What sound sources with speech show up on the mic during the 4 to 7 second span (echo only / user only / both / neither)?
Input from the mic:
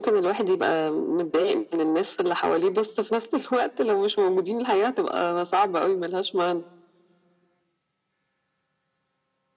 echo only